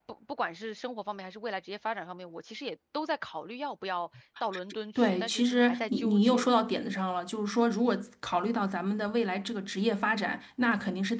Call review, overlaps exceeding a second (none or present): present